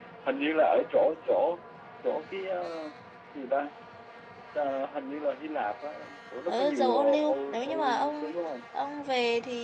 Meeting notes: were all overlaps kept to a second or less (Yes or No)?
No